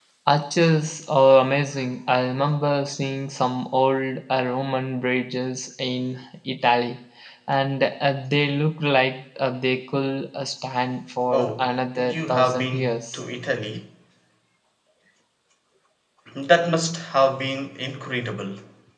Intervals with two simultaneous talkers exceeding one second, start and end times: 11.3-13.2

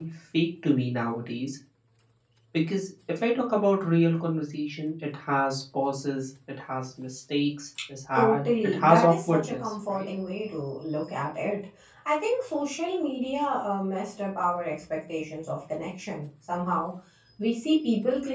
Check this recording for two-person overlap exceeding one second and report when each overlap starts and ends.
8.2-10.1

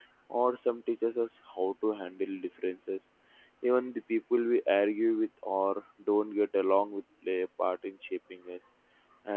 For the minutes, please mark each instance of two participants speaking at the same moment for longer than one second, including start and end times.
none

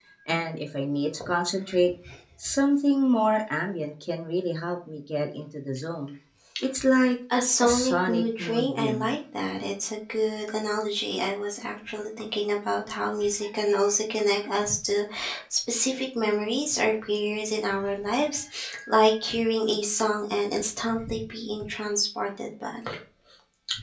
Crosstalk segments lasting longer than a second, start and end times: 7.6-9.1

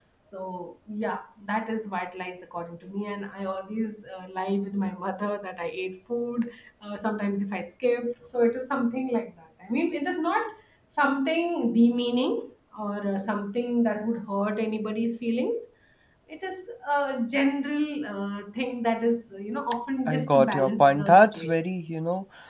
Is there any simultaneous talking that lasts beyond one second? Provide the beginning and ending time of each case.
20.1-21.6

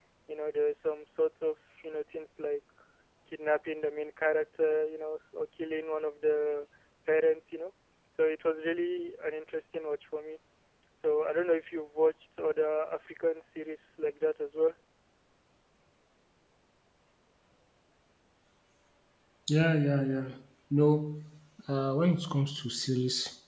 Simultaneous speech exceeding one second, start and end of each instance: none

